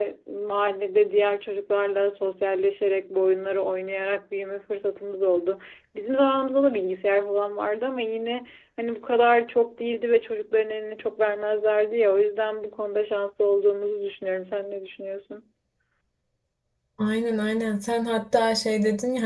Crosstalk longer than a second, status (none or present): none